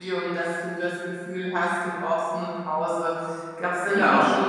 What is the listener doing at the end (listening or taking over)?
listening